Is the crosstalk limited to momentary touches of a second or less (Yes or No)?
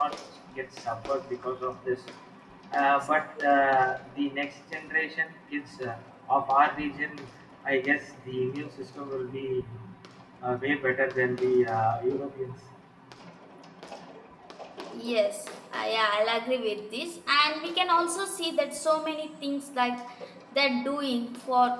Yes